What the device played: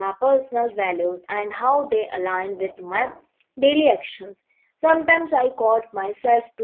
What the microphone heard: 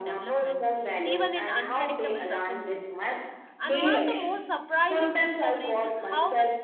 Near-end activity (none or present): present